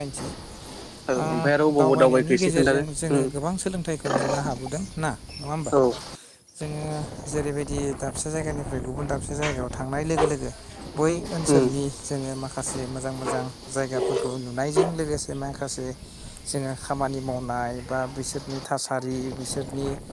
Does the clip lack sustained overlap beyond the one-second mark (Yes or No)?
No